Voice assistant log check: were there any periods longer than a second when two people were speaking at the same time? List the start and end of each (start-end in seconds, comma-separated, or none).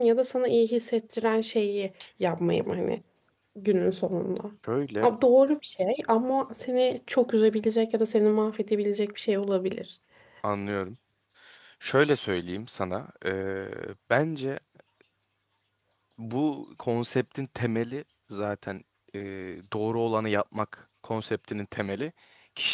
none